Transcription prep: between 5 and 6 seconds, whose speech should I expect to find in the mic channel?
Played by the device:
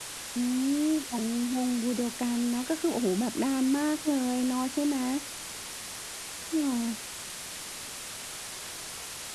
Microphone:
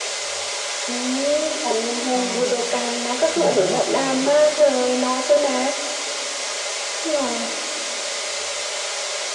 echo only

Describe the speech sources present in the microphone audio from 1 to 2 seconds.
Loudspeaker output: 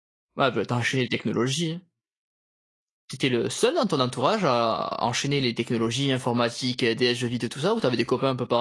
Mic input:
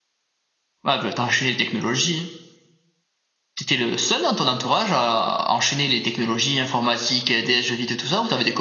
echo only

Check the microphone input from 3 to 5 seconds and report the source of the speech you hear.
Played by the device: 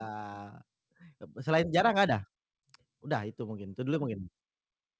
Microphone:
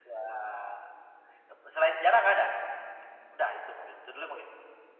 echo only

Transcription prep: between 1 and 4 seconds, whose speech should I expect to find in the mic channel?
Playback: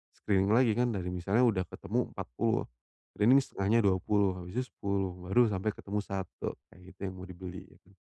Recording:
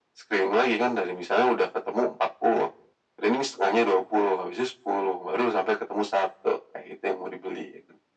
echo only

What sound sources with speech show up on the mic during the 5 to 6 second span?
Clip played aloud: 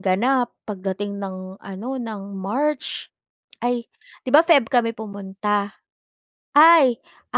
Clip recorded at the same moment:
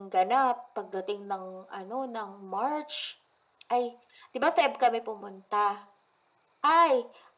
echo only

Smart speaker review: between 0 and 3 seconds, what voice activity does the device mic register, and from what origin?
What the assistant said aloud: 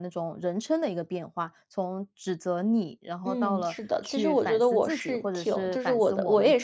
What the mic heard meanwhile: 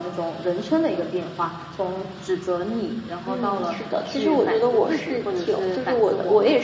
echo only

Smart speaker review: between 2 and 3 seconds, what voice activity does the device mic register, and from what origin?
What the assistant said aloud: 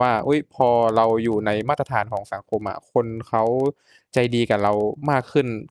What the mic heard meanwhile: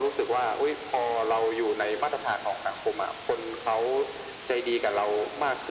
echo only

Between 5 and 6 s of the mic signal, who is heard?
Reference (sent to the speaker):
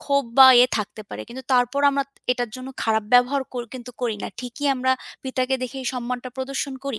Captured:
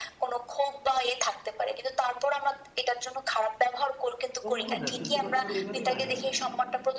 both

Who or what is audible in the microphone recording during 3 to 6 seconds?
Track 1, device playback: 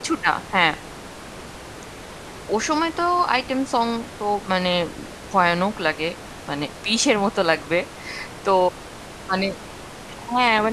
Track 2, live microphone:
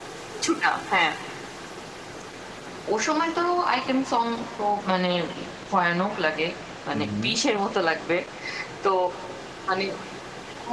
echo only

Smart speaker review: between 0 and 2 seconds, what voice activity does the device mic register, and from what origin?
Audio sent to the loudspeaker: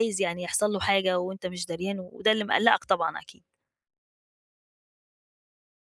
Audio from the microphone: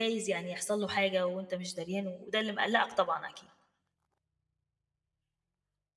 echo only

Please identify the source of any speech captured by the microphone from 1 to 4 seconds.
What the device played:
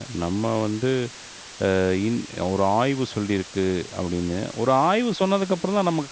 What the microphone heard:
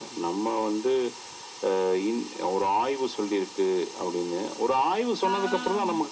echo only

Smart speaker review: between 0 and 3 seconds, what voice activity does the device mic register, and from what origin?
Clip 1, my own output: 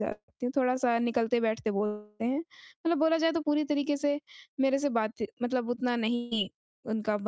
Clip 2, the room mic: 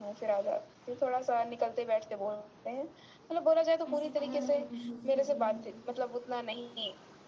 echo only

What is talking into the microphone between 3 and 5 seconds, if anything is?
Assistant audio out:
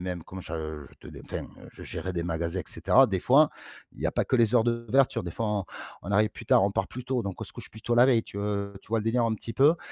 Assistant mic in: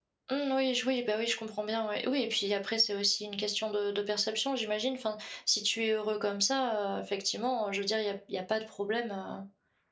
user only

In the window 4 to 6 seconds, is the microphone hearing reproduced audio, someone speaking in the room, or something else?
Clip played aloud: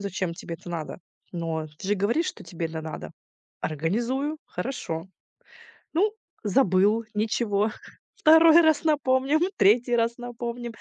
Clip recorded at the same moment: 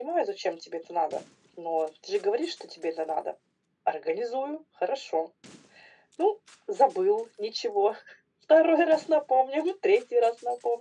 echo only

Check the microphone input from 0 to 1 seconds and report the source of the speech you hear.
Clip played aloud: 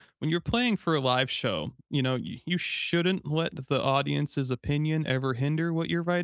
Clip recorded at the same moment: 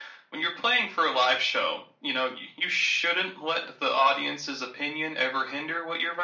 echo only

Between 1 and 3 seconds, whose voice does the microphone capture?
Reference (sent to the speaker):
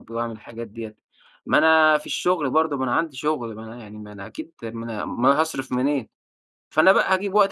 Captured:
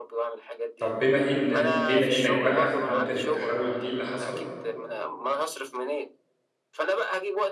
both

